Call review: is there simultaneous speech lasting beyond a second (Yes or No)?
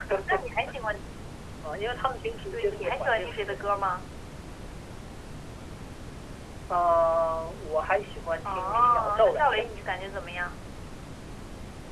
Yes